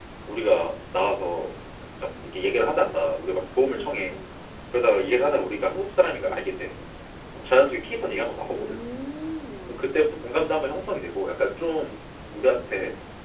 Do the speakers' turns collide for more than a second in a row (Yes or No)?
No